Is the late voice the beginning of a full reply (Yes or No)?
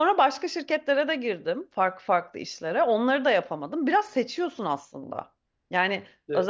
No